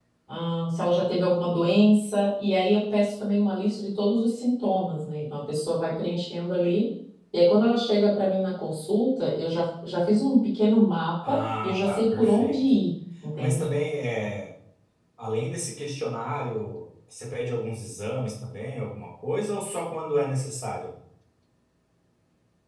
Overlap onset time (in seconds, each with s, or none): 11.3 s